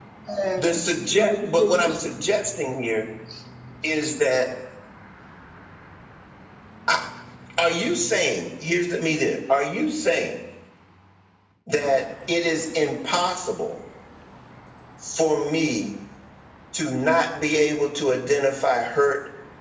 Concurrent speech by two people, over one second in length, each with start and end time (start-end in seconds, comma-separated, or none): 0.6-2.2